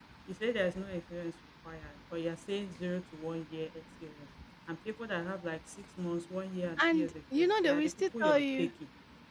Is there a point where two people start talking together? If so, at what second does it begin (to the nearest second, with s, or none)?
7 s